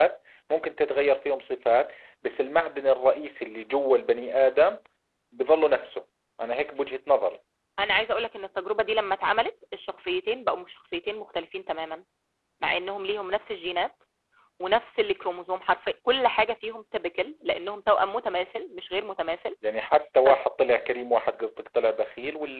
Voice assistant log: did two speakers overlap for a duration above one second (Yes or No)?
No